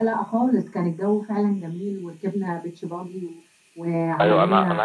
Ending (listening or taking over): taking over